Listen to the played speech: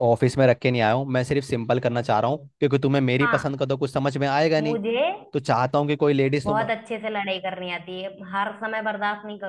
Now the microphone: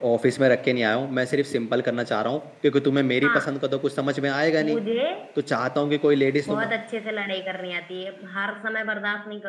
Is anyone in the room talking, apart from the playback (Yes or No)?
No